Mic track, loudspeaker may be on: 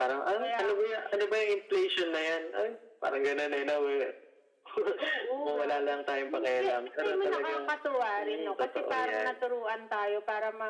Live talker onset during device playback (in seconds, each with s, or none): none